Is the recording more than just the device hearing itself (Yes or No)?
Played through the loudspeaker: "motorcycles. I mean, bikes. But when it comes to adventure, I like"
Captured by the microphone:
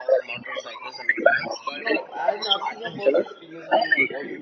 Yes